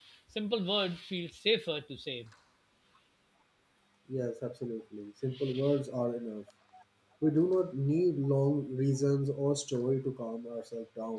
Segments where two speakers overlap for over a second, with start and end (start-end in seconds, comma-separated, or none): none